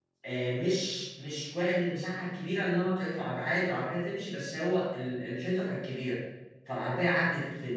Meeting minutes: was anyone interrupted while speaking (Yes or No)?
No